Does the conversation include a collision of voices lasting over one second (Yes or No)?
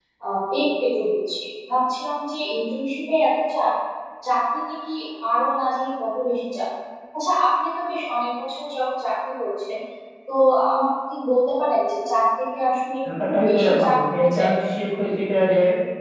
Yes